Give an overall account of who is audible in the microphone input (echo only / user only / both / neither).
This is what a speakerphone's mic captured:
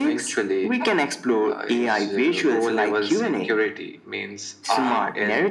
echo only